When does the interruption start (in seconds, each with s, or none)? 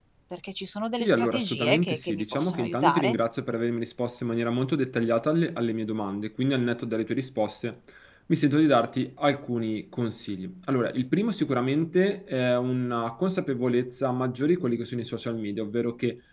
1.0 s